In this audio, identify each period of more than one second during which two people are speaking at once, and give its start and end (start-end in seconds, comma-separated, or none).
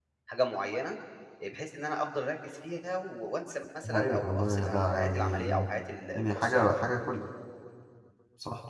3.9-5.4